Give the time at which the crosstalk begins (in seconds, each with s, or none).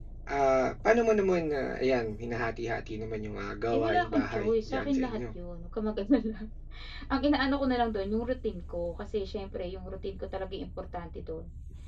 3.7 s